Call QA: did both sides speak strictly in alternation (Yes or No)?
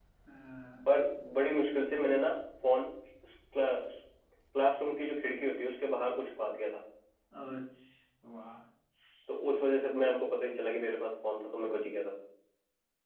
Yes